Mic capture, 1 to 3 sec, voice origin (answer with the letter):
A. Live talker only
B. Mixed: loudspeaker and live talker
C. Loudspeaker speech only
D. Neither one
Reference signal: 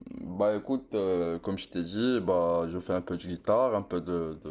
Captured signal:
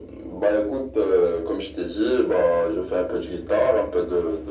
C